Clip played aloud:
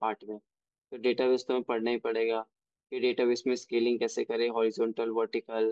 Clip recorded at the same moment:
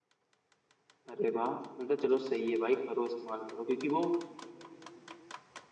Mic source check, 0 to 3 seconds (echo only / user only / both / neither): user only